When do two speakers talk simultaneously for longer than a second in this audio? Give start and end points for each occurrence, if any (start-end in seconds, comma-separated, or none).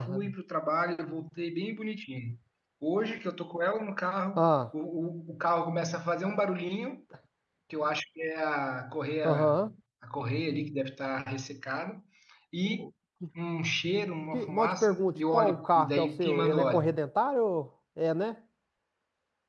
14.3-17.0